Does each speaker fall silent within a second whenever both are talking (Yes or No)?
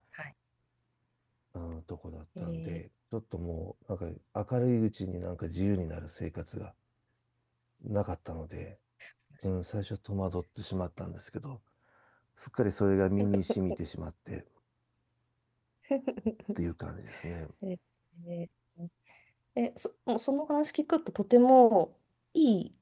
Yes